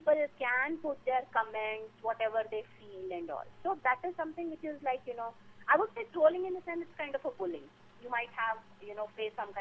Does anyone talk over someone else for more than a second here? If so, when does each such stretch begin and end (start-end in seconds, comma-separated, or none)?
none